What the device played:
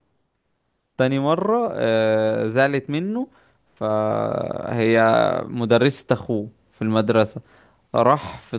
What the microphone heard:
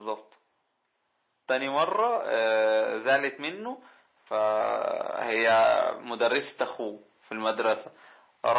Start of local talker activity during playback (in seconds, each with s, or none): none